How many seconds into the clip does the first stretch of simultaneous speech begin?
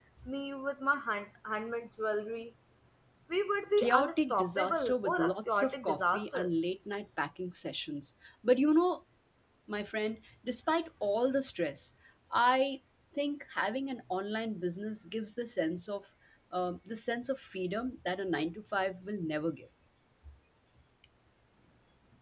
3.8 s

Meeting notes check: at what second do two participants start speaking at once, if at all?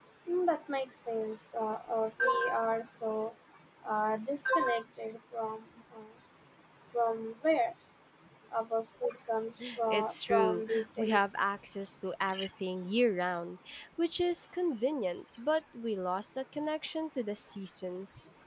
9.9 s

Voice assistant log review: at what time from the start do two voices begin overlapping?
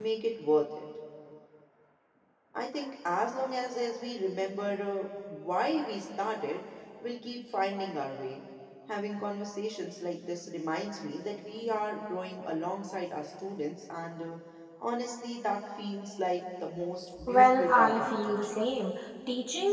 17.2 s

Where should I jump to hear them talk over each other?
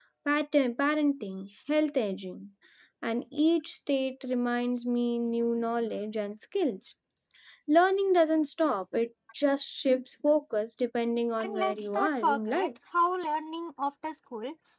11.4 s

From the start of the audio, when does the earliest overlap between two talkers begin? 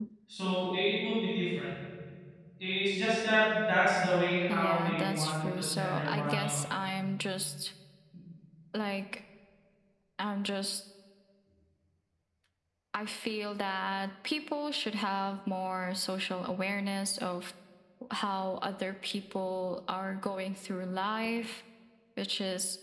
4.5 s

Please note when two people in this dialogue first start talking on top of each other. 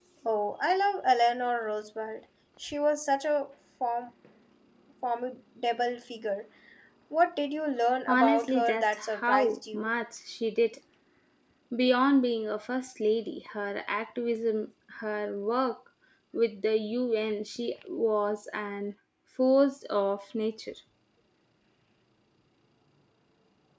8.1 s

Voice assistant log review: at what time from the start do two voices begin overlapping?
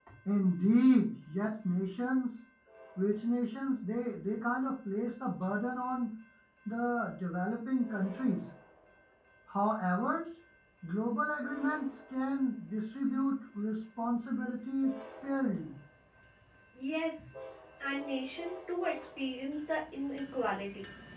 none

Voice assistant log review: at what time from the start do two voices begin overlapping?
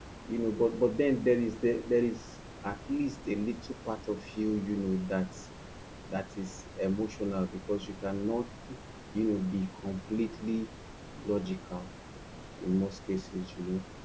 none

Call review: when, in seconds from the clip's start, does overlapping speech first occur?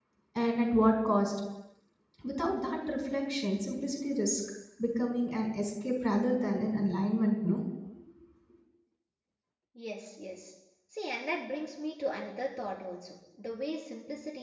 none

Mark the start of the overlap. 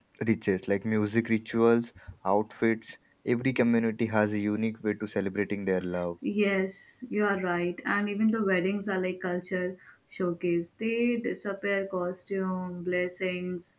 none

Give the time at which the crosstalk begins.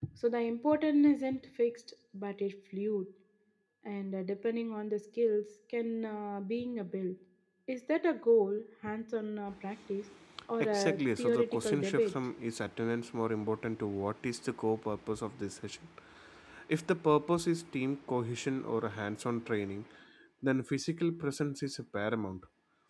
10.6 s

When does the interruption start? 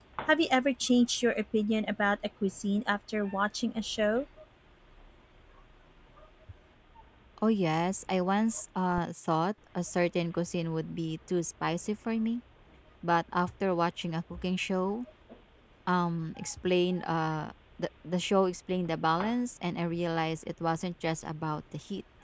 none

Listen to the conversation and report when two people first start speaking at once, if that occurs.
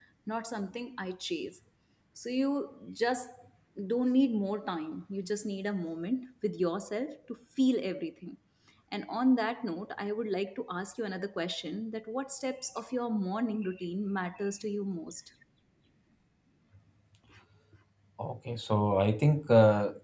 none

